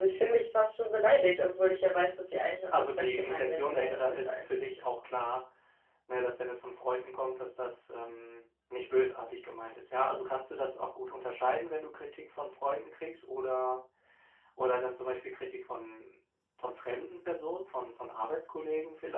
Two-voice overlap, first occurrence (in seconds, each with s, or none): 2.7 s